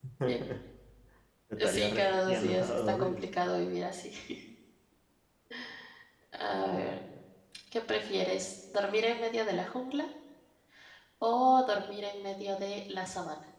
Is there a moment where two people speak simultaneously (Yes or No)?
Yes